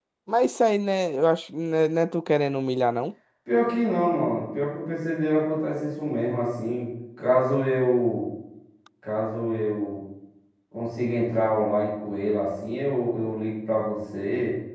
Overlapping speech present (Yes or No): No